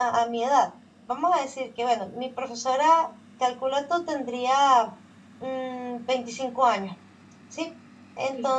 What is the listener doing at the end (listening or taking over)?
listening